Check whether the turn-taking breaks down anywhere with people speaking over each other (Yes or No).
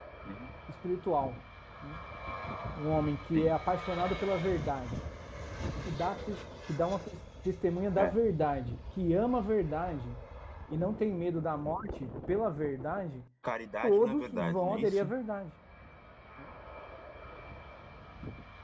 Yes